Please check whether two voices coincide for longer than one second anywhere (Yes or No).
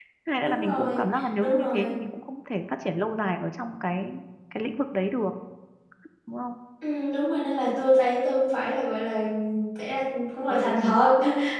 Yes